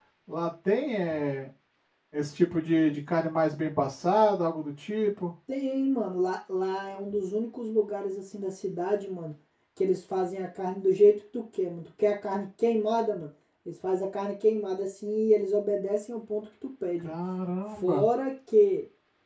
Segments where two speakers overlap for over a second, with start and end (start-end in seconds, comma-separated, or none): none